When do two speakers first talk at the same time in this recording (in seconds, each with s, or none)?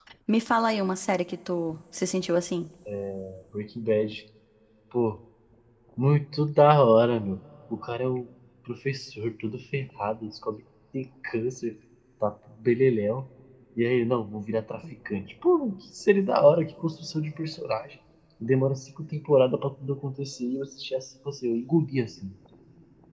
none